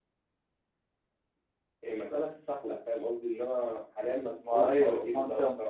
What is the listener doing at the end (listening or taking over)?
taking over